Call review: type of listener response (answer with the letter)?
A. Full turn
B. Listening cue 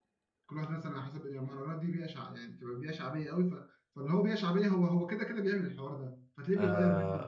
A